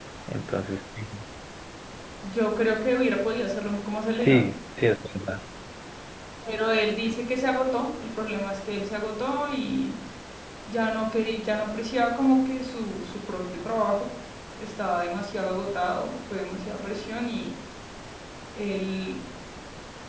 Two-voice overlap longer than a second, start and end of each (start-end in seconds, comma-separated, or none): none